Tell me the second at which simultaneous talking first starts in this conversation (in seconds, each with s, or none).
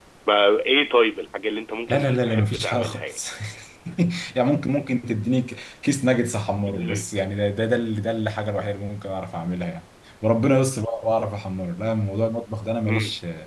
1.9 s